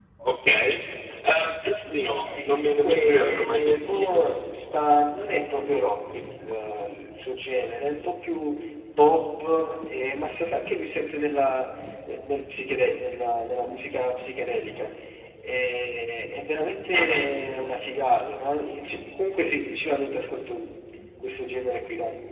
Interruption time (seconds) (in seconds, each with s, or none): 2.4 s